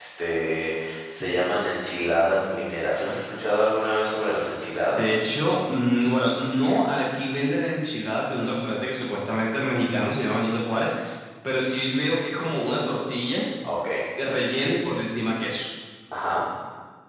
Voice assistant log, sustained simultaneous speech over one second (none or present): none